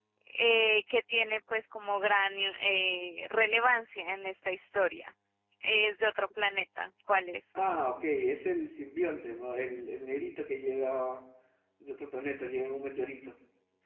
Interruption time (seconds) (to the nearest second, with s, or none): none